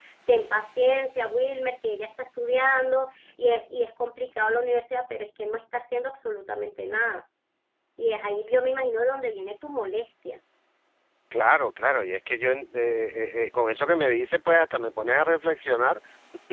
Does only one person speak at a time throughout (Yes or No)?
Yes